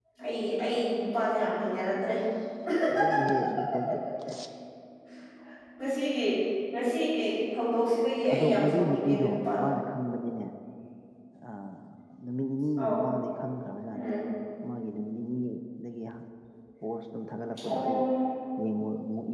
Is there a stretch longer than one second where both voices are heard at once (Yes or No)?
Yes